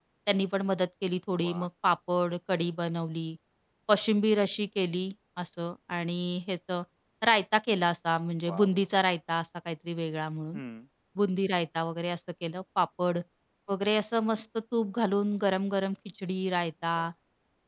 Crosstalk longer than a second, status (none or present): none